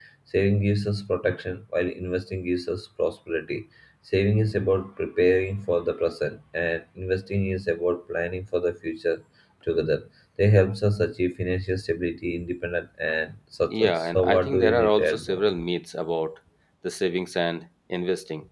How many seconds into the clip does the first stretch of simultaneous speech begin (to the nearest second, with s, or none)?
14 s